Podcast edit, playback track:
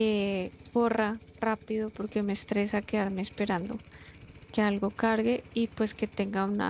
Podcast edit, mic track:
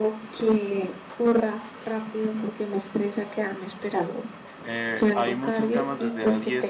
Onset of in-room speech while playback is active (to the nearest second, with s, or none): 5 s